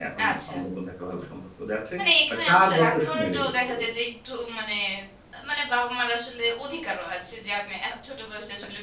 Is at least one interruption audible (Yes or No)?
Yes